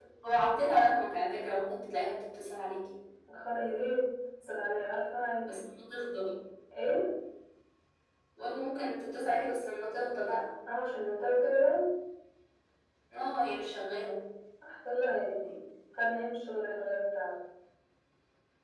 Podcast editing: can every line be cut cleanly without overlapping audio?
Yes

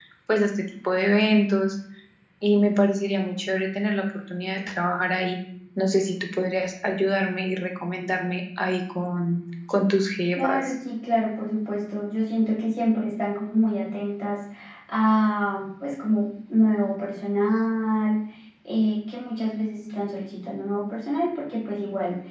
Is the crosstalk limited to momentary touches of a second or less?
Yes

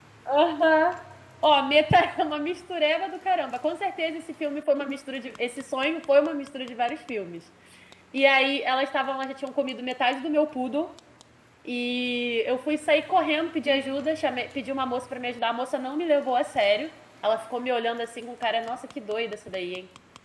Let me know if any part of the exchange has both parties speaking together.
No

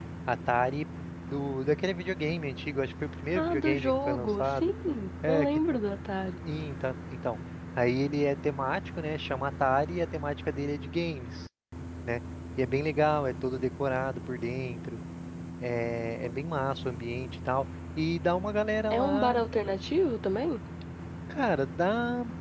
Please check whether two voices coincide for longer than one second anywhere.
Yes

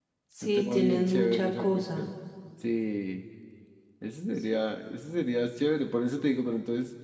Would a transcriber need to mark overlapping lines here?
Yes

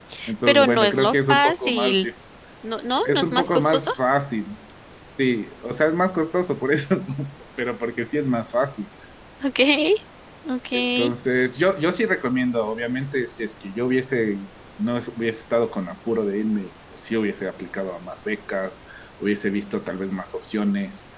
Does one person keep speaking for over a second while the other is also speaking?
Yes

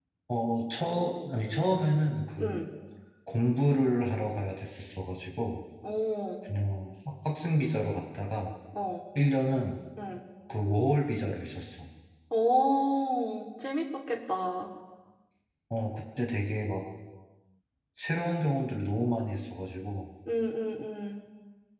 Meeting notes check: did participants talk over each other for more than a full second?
No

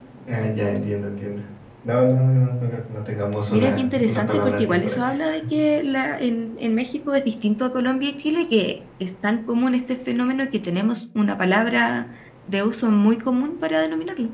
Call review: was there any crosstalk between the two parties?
Yes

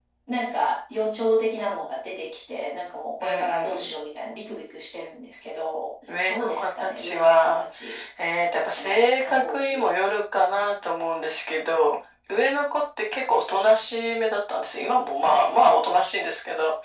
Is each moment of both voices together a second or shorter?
No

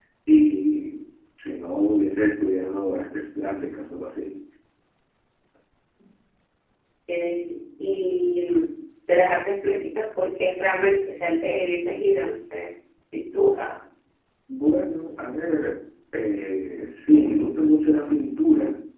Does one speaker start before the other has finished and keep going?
No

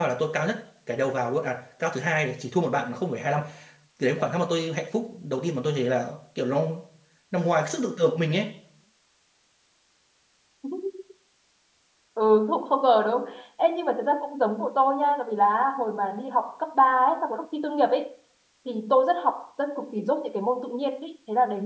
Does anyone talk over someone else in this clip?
No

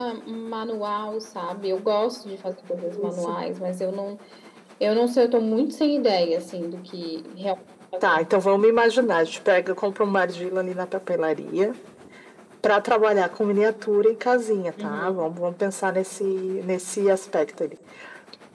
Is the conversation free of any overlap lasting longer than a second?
Yes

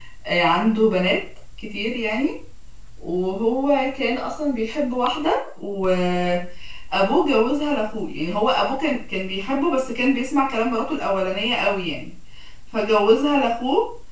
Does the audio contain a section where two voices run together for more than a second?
No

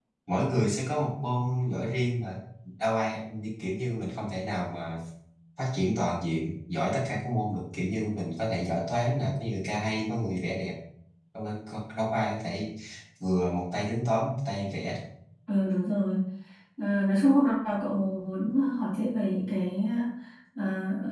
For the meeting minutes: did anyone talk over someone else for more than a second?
No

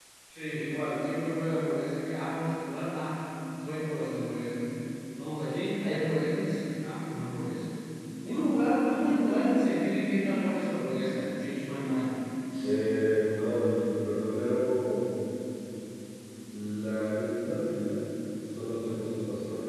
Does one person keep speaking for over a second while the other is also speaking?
No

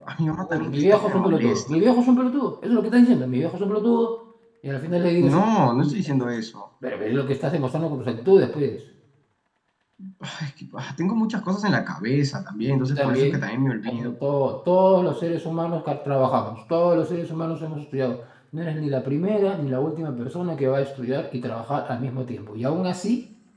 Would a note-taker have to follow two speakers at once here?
Yes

